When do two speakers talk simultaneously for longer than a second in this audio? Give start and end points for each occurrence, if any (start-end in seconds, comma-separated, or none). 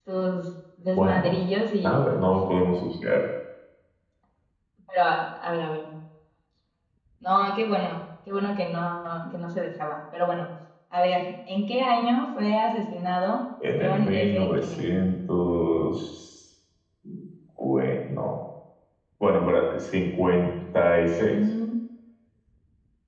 13.7-15.0